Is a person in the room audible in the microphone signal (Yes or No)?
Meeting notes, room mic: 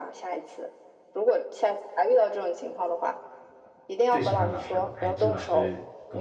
Yes